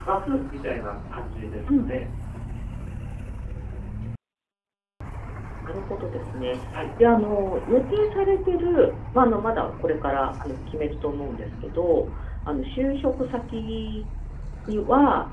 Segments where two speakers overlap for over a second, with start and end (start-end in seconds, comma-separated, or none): none